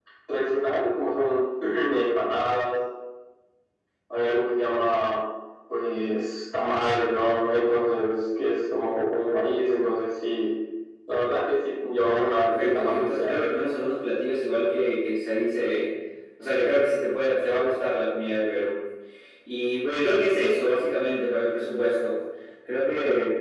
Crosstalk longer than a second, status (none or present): present